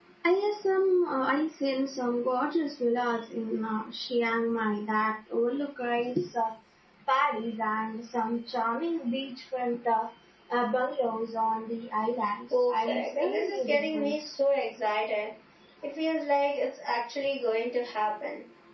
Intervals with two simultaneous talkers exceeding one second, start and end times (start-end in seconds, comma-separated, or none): 12.7-14.3